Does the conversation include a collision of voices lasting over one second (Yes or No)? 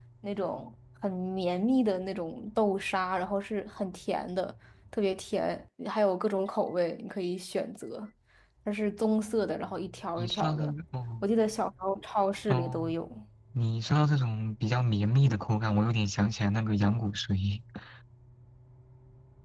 No